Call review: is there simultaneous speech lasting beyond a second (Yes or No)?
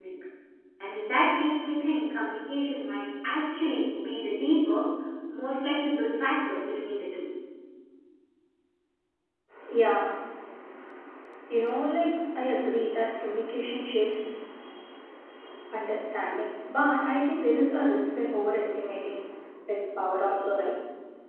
No